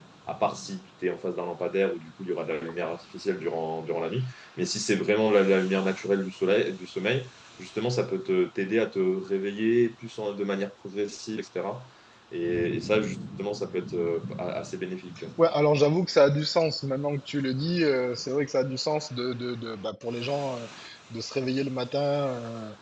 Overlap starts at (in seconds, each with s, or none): none